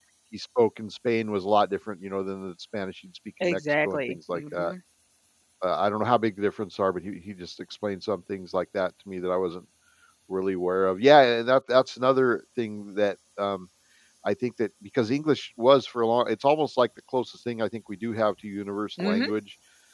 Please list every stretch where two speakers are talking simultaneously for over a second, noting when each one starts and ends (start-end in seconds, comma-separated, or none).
3.4-4.7